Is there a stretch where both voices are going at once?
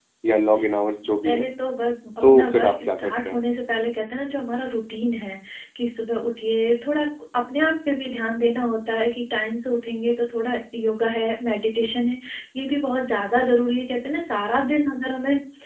Yes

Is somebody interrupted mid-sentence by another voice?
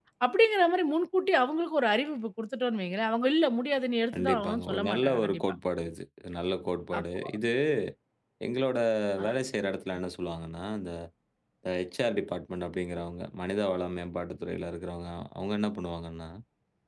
Yes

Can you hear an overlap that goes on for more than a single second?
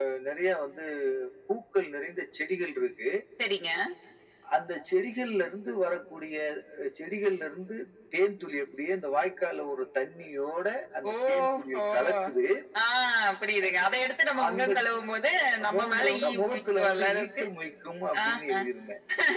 Yes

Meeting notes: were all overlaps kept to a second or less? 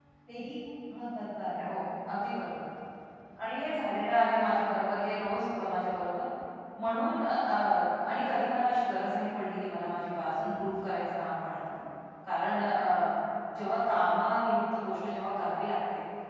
Yes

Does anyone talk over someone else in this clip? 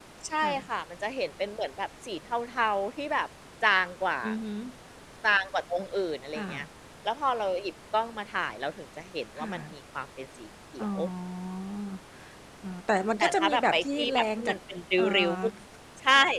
Yes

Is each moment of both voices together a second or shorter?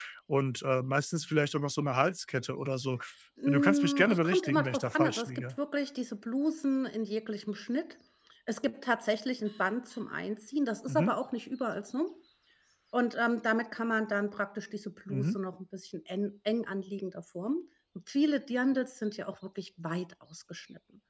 No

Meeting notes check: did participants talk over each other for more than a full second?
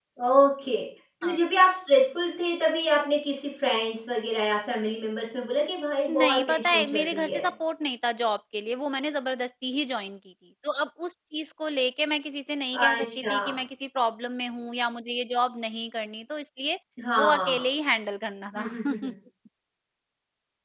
Yes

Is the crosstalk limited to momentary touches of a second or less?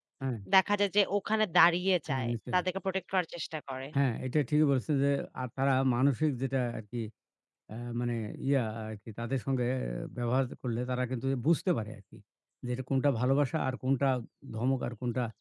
Yes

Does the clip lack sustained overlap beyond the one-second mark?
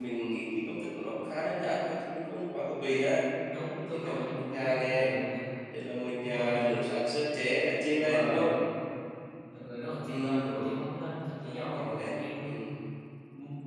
No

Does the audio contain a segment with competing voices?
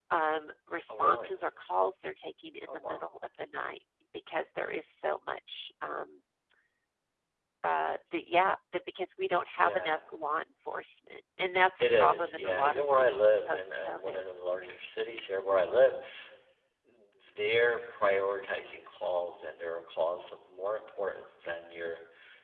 Yes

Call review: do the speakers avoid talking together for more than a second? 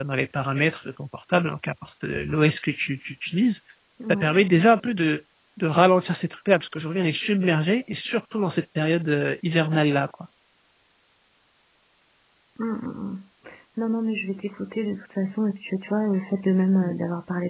Yes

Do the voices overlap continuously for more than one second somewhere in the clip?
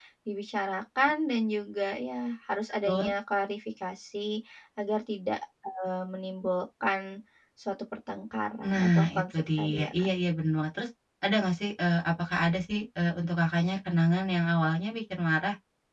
Yes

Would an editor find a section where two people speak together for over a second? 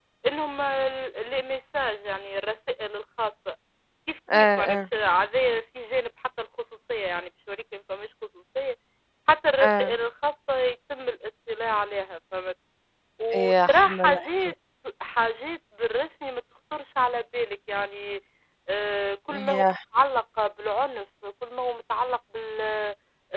Yes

